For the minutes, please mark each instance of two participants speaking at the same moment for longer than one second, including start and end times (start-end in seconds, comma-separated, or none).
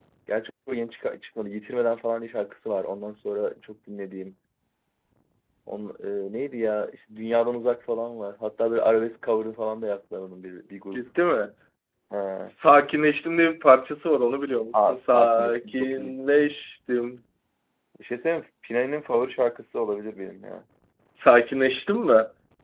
14.8-16.2